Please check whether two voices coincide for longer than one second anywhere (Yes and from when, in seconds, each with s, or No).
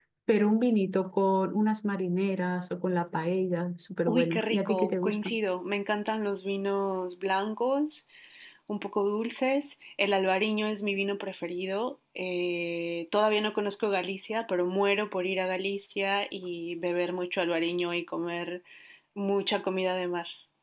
Yes, from 4.1 s